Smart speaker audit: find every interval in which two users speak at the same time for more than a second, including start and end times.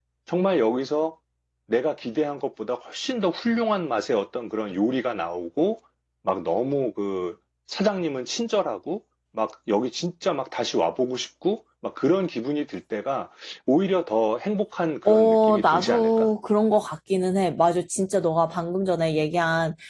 15.1-16.3

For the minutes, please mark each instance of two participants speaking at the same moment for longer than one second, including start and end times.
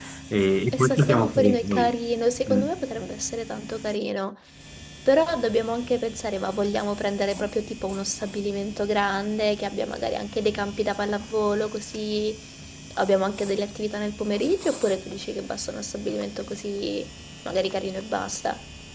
0.7-1.9

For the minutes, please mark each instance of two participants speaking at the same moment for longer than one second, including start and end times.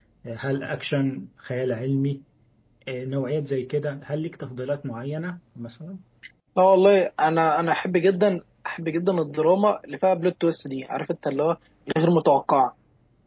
none

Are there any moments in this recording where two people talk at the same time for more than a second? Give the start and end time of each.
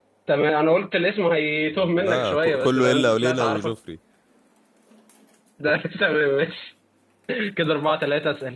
2.0-3.7

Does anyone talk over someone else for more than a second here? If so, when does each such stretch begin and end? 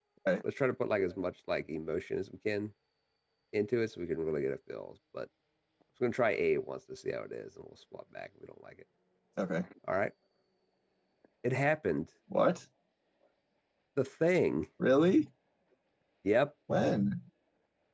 none

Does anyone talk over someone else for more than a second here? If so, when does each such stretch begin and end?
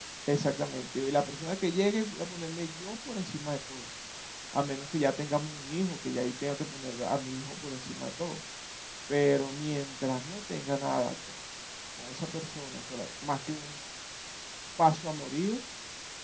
none

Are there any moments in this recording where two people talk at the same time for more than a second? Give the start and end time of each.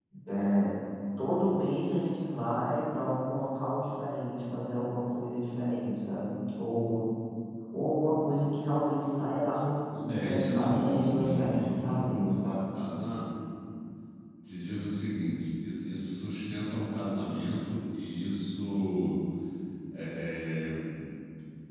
10.1-12.6

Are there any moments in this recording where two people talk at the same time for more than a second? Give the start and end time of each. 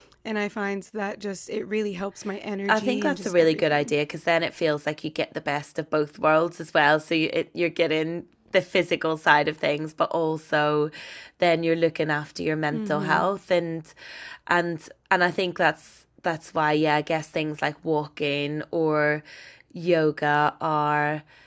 2.7-3.9

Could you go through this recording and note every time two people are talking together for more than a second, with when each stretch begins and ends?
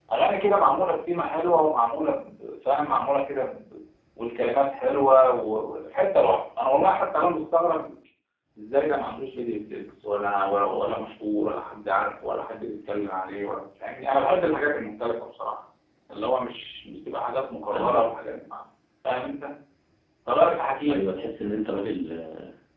none

